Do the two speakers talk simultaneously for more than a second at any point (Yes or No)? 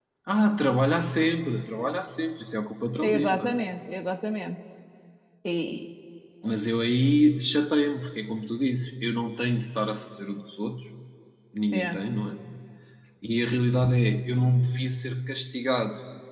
No